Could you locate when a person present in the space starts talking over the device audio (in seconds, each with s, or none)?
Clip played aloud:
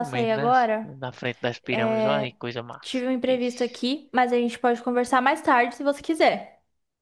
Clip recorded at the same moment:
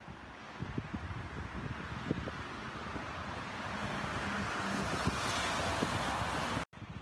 none